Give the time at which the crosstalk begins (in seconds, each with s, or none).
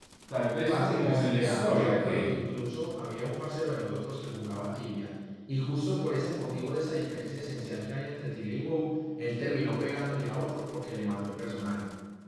0.7 s